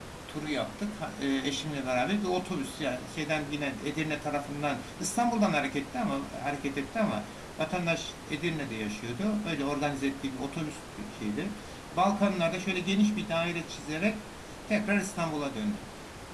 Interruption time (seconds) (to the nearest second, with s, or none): none